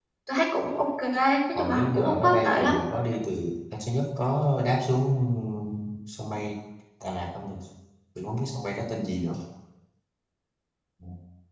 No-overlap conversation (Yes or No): No